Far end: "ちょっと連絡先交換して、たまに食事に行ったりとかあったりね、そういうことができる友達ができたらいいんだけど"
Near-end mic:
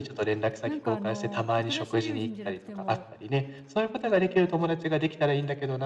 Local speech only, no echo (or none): なんかあの、新しい友人じゃなくても、